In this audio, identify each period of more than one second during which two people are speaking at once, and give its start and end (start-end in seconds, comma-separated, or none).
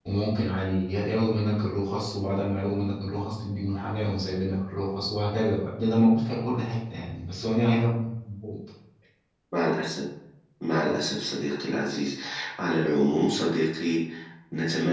none